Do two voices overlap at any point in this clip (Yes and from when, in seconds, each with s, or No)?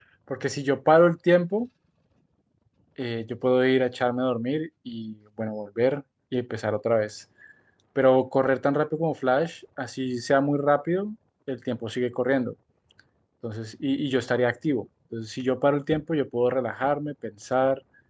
No